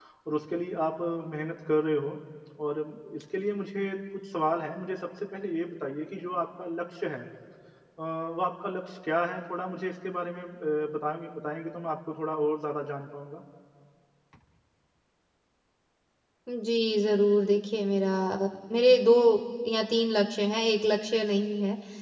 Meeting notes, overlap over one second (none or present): none